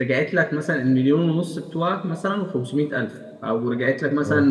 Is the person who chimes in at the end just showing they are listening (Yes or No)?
Yes